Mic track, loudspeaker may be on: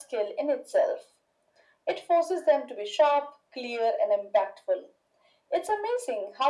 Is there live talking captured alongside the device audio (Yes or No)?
No